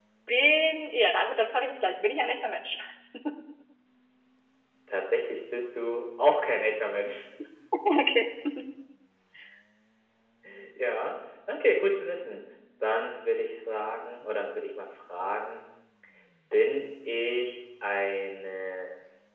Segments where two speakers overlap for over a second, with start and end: none

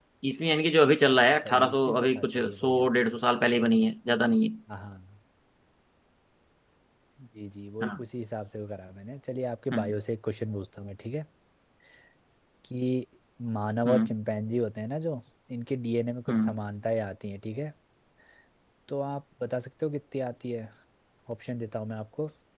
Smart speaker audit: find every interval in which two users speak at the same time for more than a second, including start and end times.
1.3-2.9

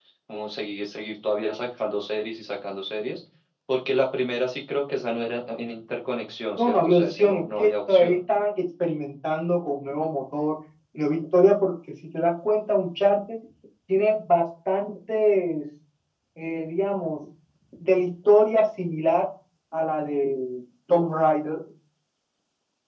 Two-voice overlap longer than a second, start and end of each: 6.6-8.2

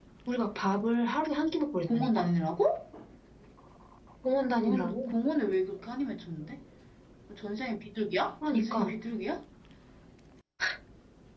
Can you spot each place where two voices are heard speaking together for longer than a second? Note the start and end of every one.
none

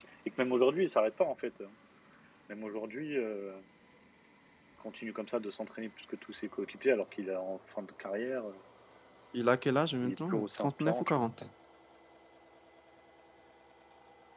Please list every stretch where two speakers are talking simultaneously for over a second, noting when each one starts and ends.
10.0-11.2

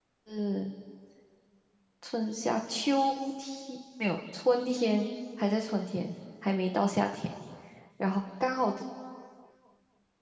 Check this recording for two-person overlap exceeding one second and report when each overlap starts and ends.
none

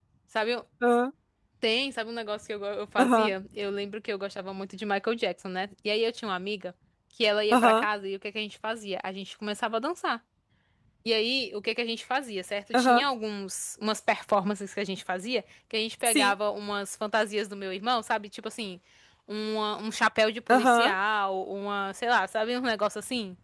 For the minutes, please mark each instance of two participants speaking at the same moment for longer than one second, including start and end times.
none

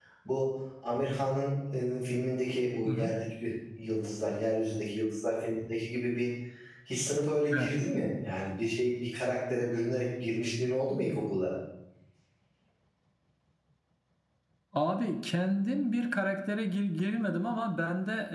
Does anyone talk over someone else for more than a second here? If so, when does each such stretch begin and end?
none

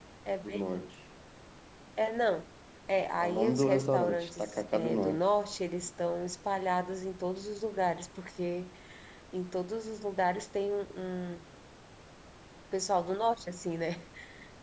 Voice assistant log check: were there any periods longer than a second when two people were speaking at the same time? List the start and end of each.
3.2-5.2

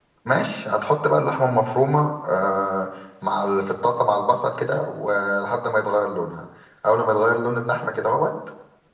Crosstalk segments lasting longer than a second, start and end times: none

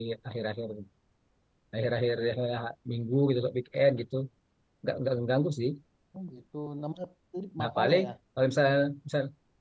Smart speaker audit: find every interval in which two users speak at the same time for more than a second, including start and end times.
none

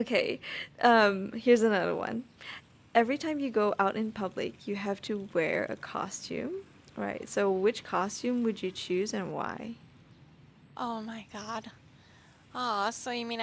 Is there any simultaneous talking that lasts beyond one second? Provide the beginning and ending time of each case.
none

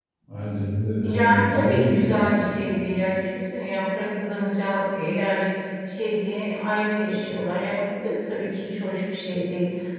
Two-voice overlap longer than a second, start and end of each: 1.0-2.4

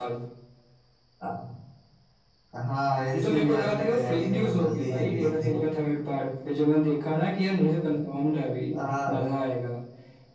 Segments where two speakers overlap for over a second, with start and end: 3.0-5.6

